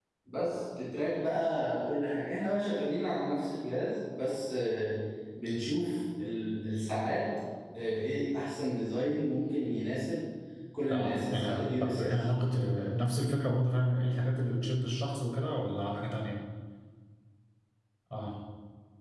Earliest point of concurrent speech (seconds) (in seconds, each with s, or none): 10.9 s